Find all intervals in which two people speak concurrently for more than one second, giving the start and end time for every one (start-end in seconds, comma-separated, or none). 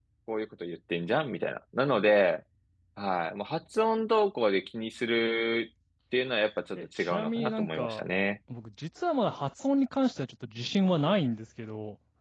6.7-8.0